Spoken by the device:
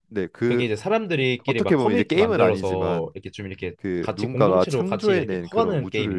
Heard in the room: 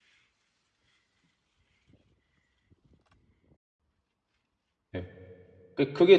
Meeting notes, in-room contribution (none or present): present